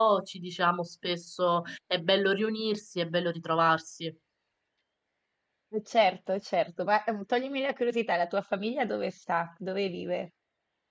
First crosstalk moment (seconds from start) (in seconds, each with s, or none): none